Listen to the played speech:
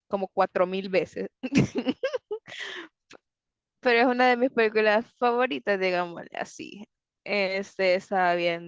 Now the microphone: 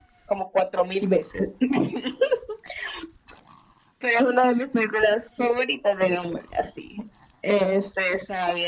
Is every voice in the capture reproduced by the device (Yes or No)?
Yes